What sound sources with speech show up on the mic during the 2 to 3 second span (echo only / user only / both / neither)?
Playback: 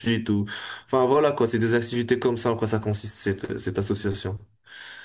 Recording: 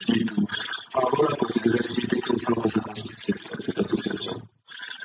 echo only